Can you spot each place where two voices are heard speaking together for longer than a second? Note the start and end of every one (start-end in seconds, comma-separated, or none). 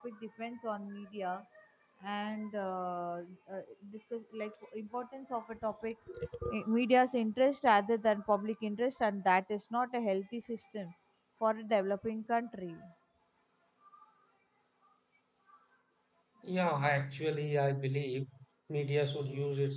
none